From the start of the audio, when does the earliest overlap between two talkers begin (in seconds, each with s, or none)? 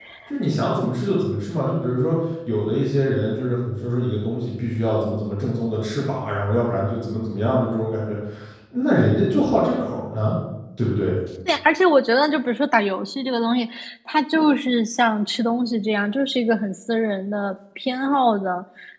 none